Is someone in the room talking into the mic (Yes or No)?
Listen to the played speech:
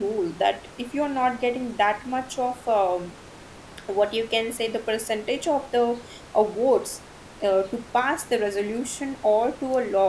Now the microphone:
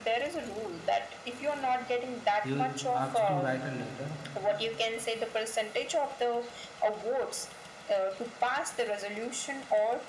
Yes